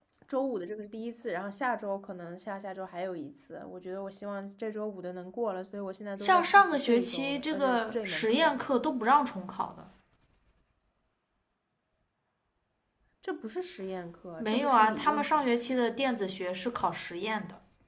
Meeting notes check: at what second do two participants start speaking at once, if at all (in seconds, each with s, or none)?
6.2 s